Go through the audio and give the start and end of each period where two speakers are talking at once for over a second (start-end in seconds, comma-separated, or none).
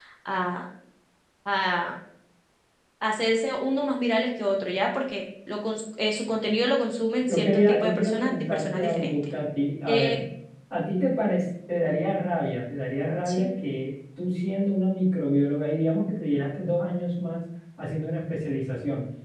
7.3-9.2